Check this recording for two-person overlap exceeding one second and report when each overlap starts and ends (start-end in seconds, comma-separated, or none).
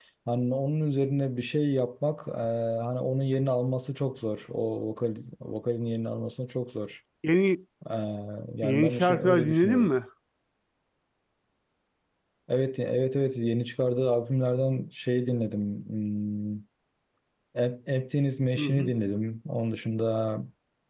8.6-9.9